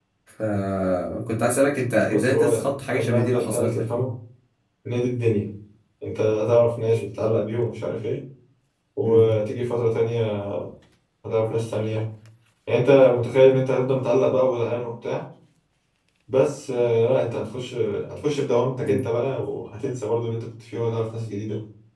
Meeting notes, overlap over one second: present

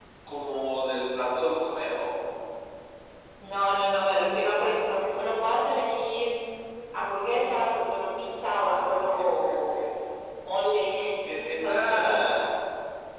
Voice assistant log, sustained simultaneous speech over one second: present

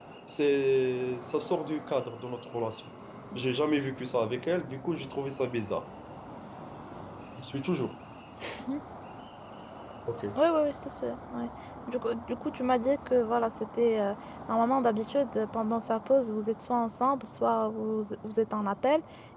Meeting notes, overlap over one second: none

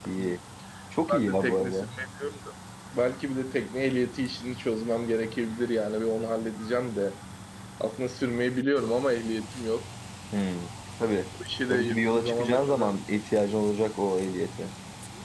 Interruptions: present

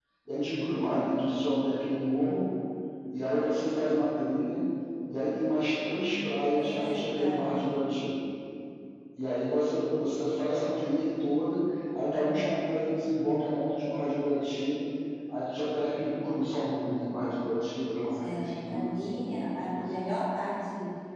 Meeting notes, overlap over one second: present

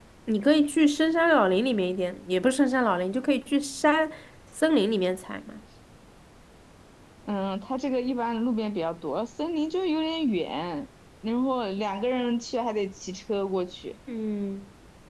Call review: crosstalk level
none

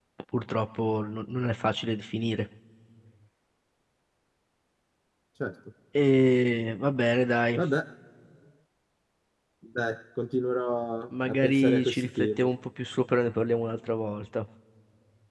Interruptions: present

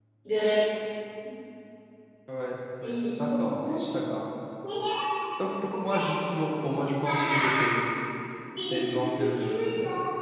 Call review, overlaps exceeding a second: present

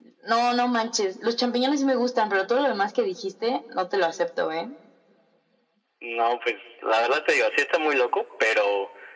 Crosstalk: none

